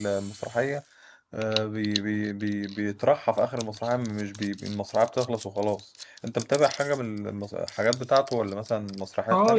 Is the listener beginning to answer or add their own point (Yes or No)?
Yes